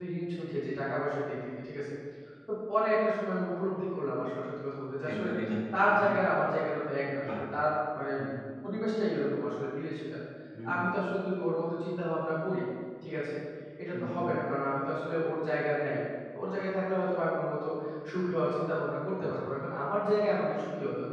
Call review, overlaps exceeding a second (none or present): none